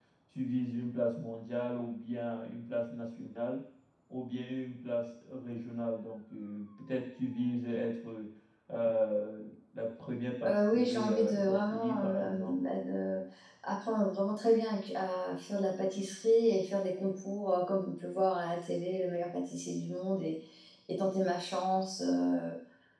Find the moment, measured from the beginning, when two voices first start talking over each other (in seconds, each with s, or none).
10.4 s